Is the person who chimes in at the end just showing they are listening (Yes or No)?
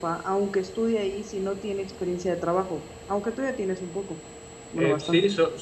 No